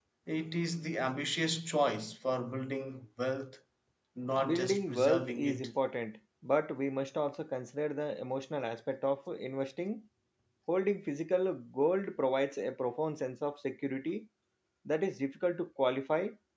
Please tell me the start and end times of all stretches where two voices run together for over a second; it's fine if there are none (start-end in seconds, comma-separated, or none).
4.4-5.7